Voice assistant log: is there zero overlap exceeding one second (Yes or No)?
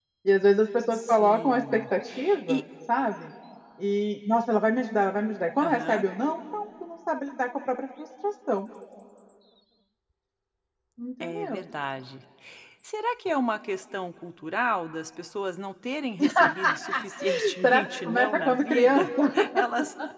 No